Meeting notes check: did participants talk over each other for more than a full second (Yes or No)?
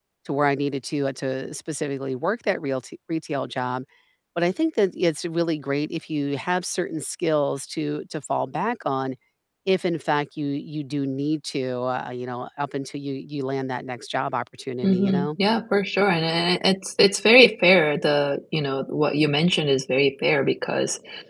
No